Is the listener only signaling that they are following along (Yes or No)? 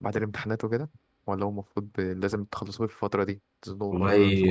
No